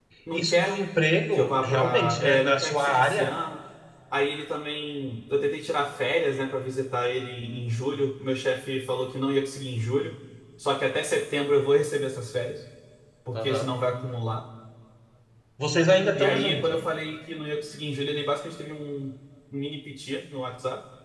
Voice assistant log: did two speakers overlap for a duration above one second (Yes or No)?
Yes